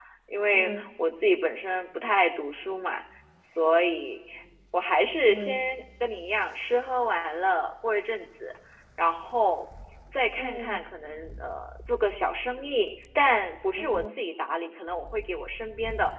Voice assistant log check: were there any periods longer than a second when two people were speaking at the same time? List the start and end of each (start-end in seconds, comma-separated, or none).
none